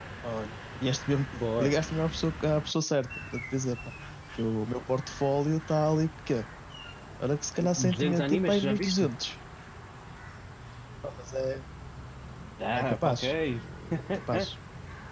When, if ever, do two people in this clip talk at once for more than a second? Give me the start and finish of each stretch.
7.8-9.1

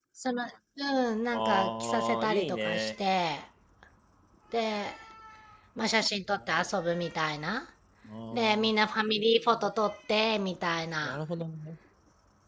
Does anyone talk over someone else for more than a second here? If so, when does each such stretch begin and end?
1.3-2.9

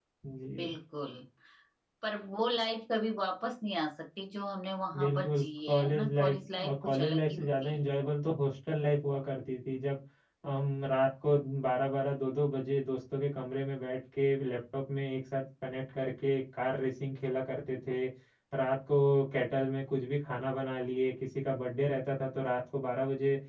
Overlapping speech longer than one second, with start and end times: 5.0-7.8

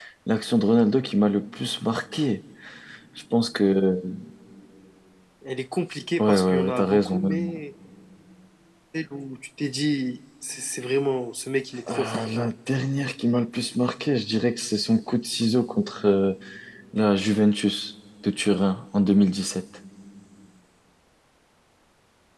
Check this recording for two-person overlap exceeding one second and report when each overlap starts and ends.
6.2-7.6

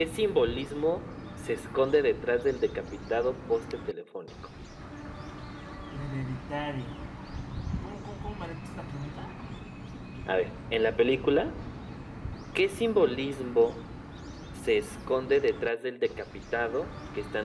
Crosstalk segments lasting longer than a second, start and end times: none

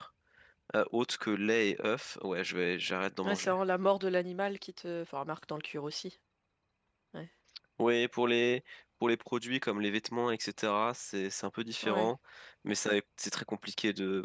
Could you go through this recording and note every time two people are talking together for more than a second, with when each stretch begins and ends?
none

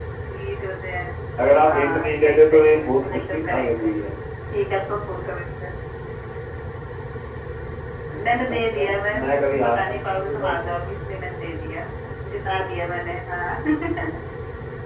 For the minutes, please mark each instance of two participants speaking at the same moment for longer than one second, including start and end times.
1.6-3.9, 8.5-10.5

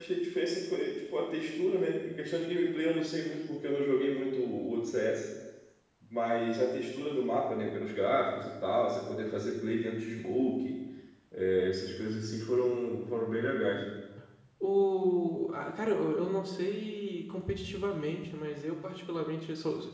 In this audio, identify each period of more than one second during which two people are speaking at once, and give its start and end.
none

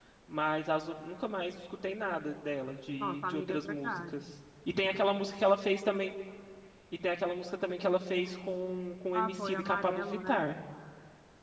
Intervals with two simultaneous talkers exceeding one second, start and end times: 3.0-4.2, 9.1-10.5

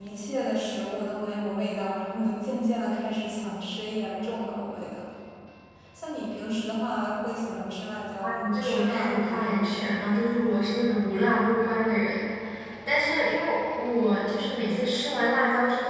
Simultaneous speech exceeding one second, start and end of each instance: 8.2-9.9

